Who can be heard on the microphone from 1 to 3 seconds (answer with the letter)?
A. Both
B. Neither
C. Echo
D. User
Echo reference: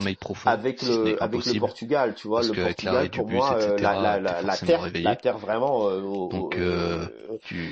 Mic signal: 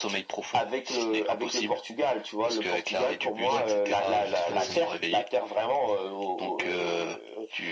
C